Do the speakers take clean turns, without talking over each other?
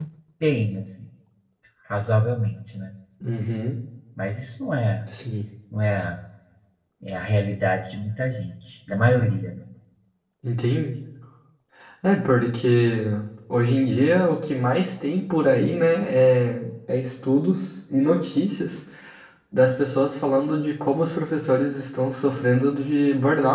Yes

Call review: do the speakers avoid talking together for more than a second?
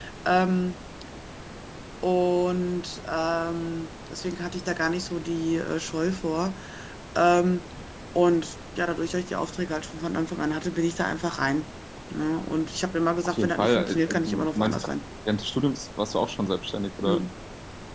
No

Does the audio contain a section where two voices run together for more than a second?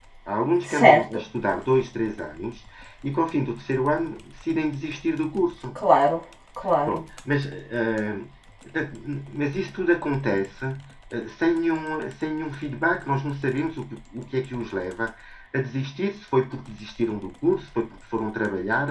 No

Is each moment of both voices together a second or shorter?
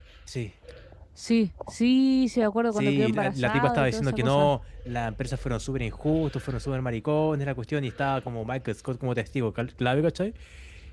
No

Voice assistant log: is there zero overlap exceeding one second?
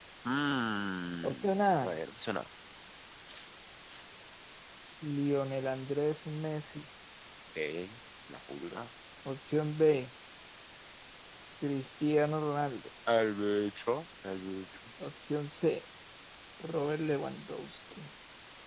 Yes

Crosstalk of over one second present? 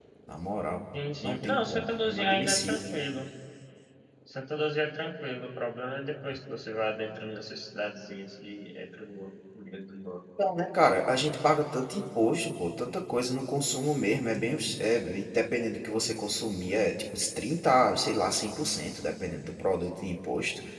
Yes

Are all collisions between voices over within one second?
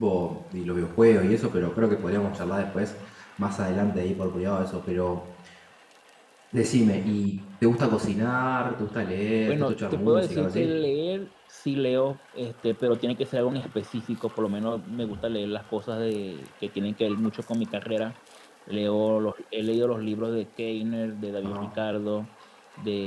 No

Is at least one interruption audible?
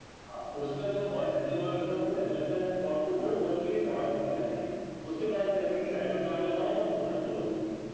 No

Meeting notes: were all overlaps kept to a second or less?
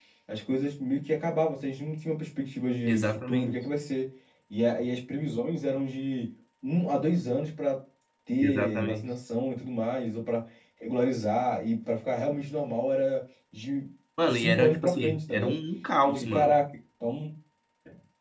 No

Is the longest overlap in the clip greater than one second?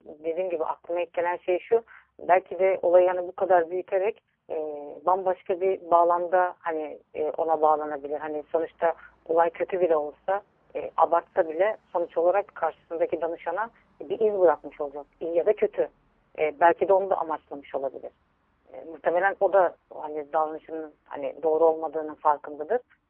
No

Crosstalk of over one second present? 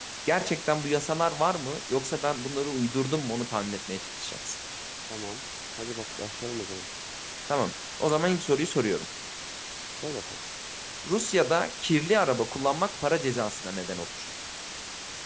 No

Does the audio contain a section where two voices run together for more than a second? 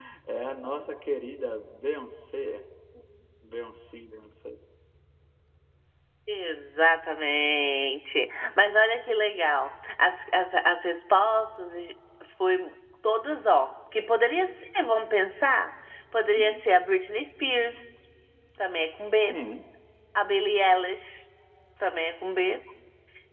No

